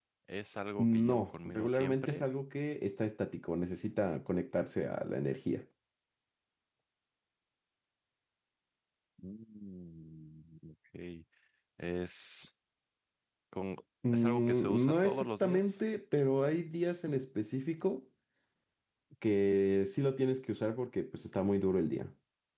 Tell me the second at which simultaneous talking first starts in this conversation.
0.8 s

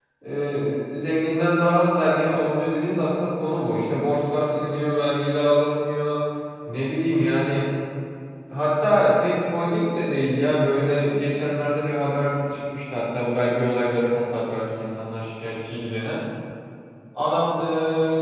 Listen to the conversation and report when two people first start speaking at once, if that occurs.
none

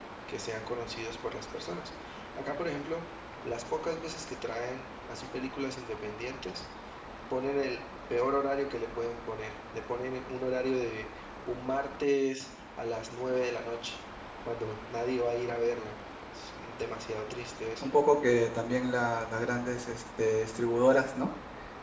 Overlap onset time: none

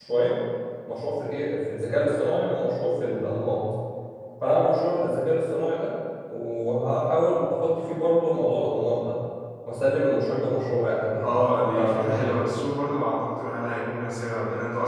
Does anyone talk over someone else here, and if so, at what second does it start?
11.2 s

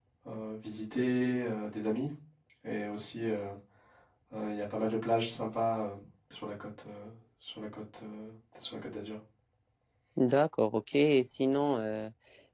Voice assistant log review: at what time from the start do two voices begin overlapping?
none

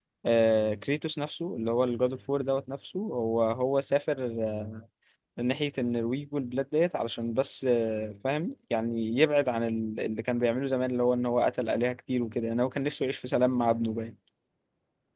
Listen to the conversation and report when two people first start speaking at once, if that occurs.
none

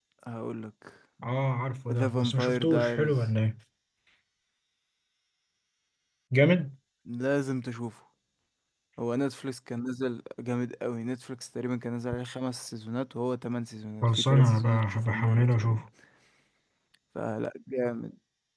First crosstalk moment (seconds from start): 1.9 s

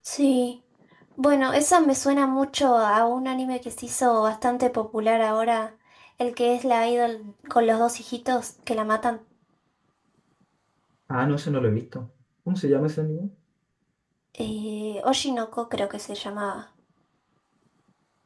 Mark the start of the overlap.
none

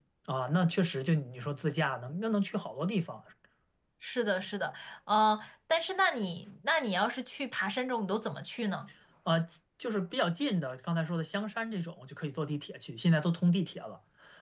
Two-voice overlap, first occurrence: none

